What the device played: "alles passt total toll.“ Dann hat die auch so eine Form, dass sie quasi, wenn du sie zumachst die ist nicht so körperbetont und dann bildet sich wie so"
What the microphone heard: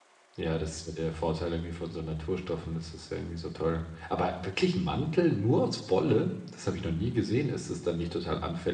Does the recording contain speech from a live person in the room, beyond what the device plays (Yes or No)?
Yes